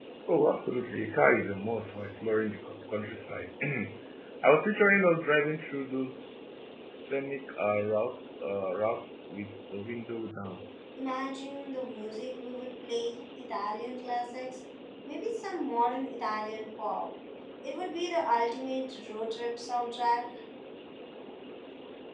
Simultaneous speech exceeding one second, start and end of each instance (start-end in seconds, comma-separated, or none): none